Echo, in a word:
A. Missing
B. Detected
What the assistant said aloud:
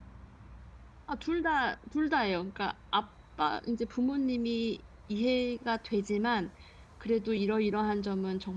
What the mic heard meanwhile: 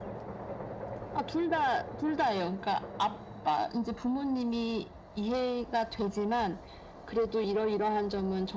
B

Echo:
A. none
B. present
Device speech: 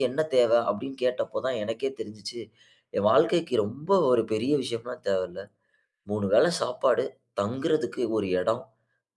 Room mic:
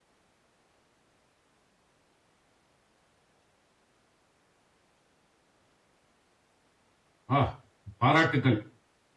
A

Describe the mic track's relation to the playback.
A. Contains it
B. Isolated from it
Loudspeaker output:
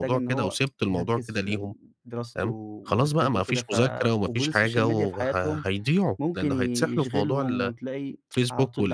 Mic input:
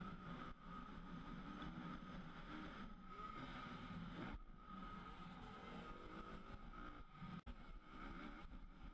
B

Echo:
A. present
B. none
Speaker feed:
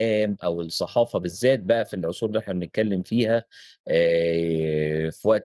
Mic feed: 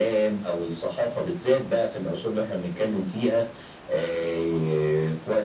A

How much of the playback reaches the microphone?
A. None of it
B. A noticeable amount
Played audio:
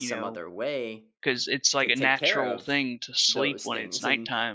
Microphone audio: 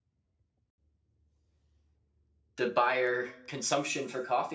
A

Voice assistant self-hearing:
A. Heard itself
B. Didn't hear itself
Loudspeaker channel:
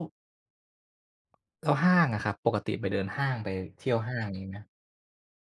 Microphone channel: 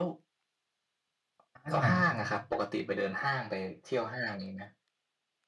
A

